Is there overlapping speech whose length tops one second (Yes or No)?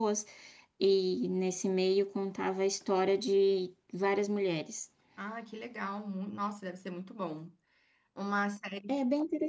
No